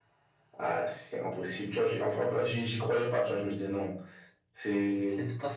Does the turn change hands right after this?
Yes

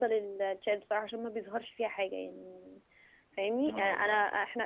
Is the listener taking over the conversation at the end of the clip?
No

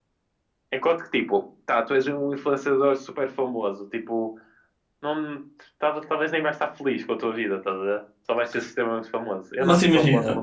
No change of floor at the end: No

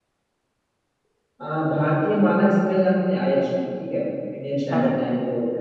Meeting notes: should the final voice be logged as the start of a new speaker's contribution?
No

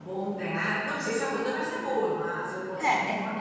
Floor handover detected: No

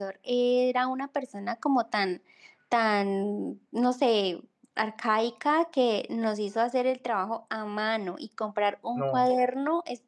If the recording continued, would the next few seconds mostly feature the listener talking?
No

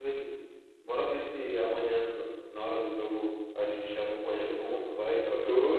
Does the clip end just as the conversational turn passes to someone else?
Yes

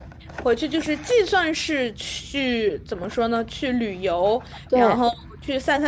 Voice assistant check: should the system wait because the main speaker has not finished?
Yes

